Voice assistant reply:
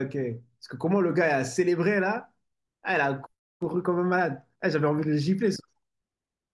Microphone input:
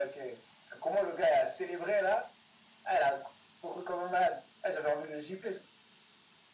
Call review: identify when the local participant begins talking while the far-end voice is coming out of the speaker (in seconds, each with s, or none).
none